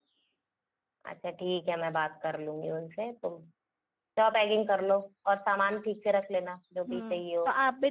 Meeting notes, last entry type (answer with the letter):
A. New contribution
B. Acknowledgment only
A